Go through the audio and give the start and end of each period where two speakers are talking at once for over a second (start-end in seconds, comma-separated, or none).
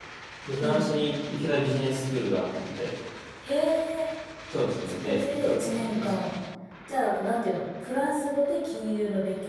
4.9-6.1